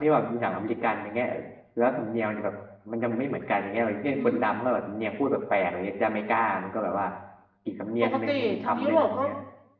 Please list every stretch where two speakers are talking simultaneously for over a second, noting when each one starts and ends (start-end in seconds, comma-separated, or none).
8.0-9.3